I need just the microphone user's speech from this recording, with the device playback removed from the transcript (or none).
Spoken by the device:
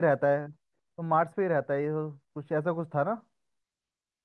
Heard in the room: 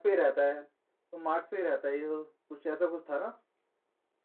none